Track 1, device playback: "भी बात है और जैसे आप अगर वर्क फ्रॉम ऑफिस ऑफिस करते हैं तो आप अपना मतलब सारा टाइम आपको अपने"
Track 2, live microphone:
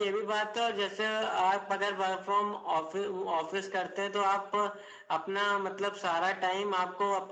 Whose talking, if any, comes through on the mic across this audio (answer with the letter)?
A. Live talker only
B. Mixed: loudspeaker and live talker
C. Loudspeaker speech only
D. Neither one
C